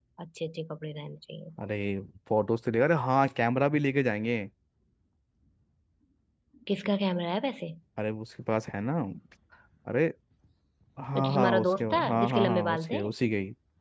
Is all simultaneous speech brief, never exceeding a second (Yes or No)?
No